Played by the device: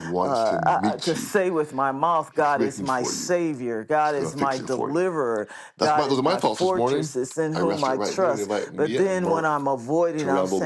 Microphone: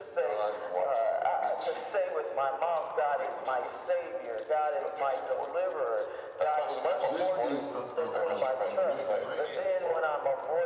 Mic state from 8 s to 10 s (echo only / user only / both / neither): both